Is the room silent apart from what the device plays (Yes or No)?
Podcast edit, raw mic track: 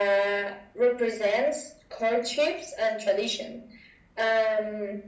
Yes